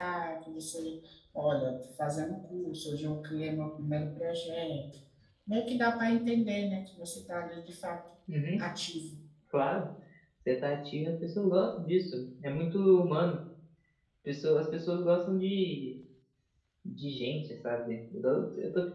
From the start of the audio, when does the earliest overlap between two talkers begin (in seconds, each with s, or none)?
none